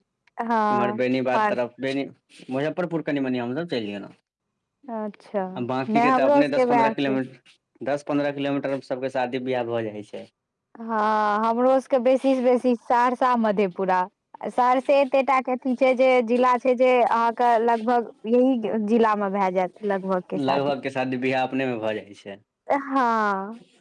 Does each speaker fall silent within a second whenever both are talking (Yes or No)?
No